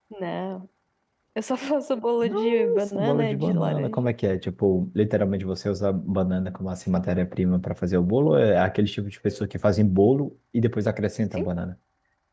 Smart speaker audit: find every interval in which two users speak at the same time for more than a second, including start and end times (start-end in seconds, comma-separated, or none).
2.2-4.1